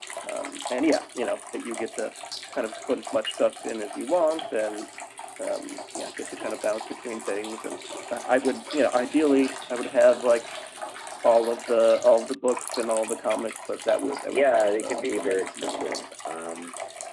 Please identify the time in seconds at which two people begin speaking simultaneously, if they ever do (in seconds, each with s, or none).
14.3 s